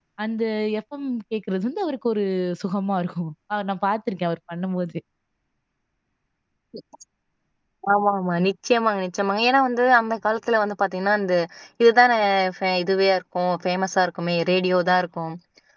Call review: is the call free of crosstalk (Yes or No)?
Yes